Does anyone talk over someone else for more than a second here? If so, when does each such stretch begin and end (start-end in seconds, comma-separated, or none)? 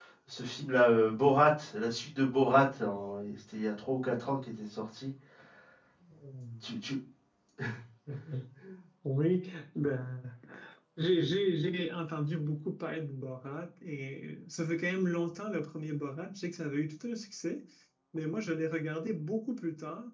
none